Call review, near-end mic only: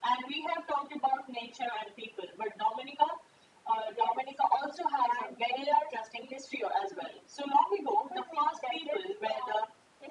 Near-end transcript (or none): none